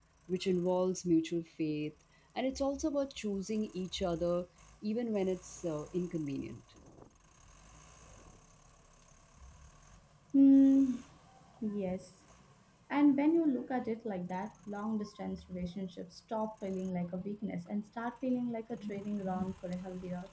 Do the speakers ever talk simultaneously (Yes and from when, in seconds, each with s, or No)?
No